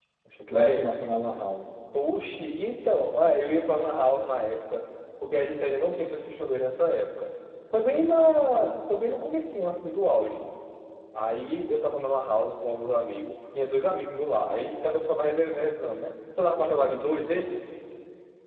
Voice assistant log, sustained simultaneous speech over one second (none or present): none